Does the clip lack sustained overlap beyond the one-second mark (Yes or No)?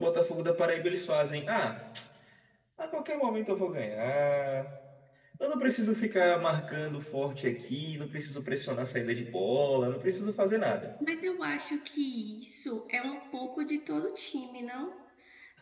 Yes